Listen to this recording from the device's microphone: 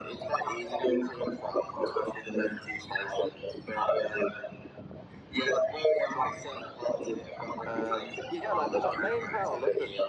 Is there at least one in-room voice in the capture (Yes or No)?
Yes